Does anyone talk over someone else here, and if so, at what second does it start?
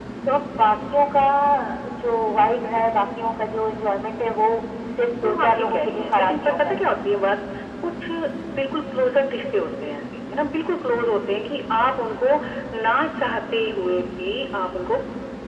5.2 s

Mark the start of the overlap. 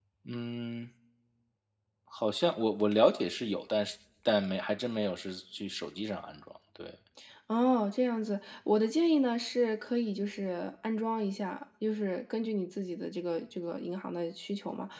none

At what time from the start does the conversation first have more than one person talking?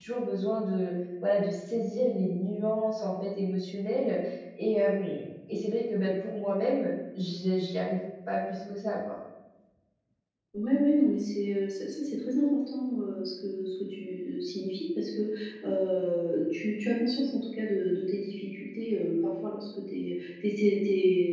none

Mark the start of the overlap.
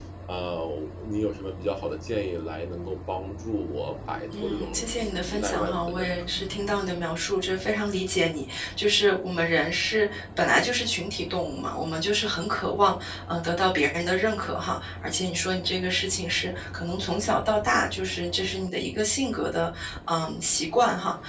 4.3 s

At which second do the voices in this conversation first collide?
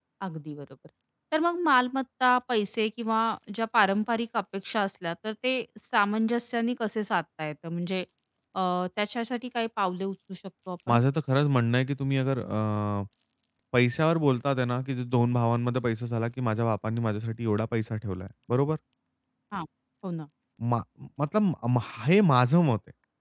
none

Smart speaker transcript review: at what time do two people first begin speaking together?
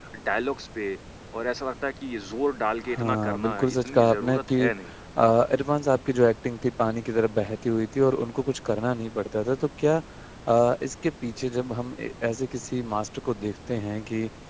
2.8 s

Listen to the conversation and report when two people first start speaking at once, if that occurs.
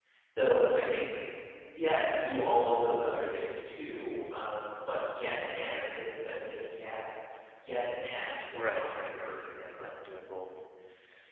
8.5 s

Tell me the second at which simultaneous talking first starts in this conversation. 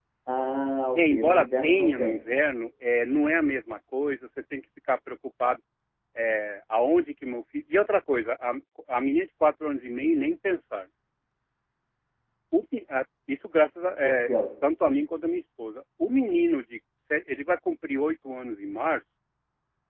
0.9 s

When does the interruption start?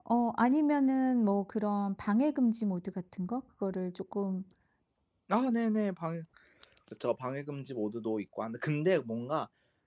none

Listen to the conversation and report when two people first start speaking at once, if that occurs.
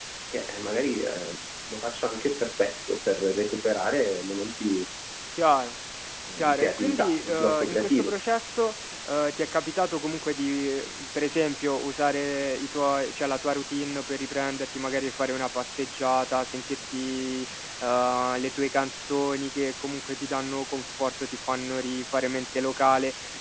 6.4 s

